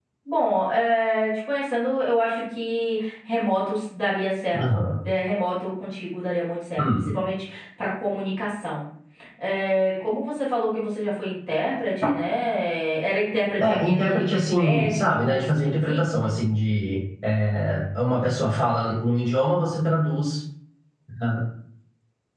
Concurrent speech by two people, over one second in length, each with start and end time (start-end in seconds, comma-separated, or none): 13.6-16.0